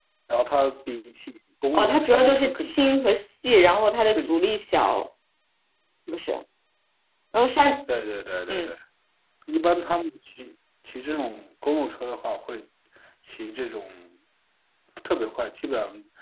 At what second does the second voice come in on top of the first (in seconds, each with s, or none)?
1.7 s